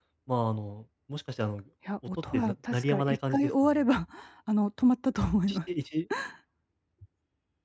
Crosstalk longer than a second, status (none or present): present